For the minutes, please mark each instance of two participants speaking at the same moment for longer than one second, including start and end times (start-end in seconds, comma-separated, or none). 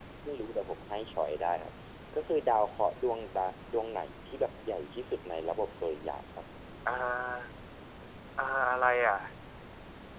none